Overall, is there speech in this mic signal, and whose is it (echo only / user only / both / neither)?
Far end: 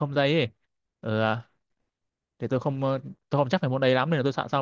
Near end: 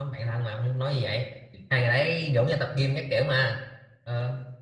user only